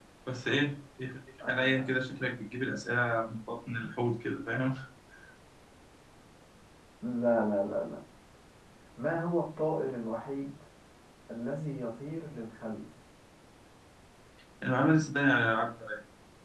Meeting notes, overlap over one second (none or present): none